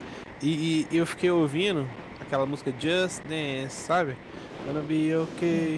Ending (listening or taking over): listening